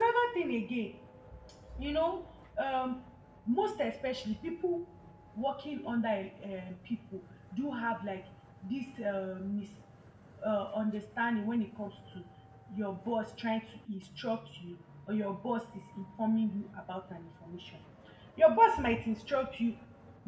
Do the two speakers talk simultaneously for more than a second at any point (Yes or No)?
No